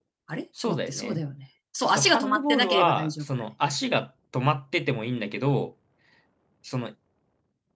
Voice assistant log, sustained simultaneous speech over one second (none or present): present